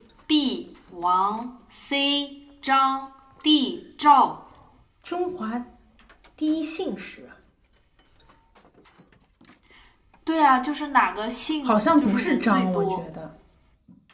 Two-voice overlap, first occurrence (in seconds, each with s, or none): 11.7 s